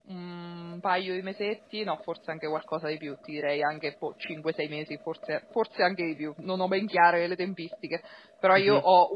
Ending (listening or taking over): listening